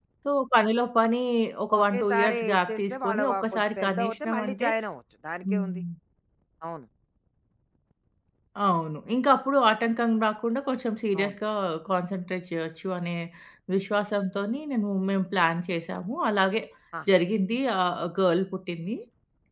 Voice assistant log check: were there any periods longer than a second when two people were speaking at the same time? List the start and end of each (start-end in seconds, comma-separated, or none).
1.8-4.7